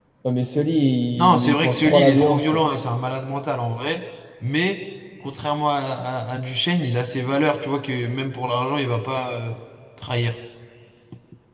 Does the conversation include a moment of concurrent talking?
Yes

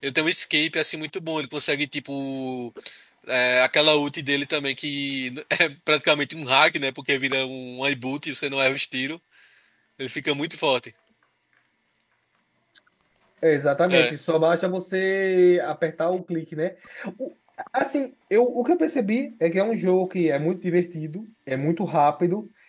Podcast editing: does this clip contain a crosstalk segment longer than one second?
No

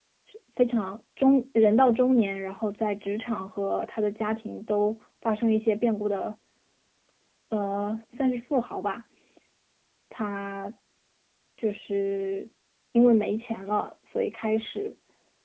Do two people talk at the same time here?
No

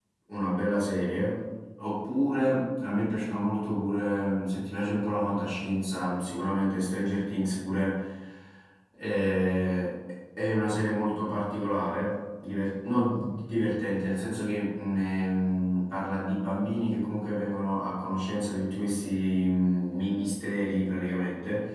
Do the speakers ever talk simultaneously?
No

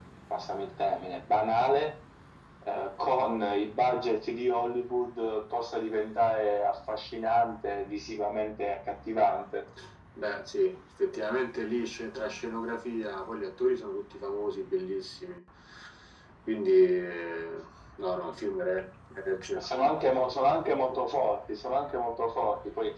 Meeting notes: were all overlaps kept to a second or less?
Yes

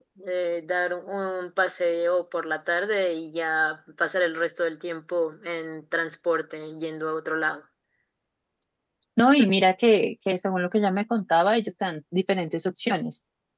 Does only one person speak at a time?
Yes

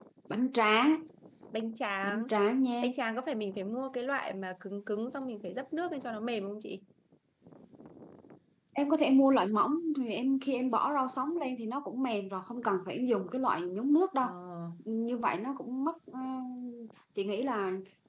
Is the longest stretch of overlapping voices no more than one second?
Yes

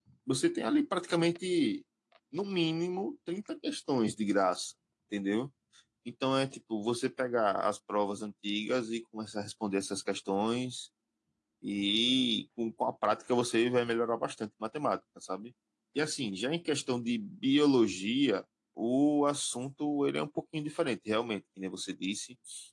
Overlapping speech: No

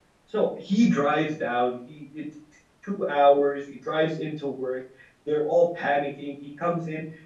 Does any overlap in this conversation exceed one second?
No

